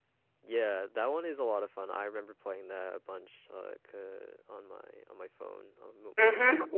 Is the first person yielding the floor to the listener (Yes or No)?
Yes